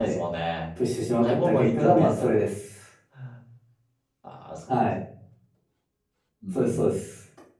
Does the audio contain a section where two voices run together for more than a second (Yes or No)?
Yes